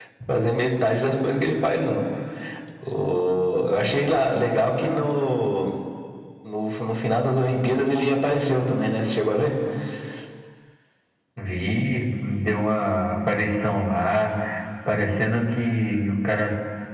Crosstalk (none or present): none